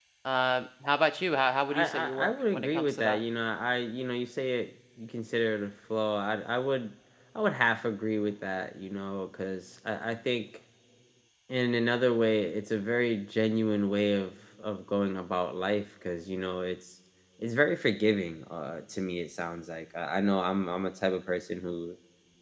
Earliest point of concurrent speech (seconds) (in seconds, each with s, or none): 1.7 s